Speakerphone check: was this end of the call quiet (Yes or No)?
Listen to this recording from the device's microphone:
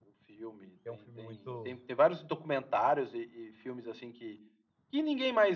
No